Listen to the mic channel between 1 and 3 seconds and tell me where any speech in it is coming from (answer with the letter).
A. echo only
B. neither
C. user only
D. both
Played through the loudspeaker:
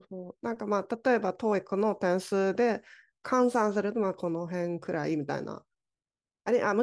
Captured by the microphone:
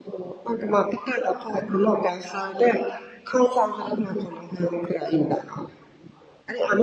A